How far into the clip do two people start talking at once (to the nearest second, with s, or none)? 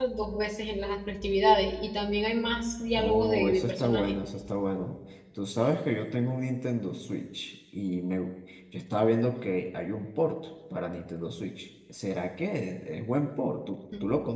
3 s